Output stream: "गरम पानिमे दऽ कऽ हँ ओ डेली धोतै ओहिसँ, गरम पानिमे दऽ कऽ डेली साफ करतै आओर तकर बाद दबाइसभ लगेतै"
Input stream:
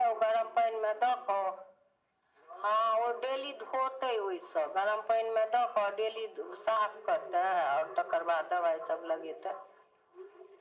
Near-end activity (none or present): none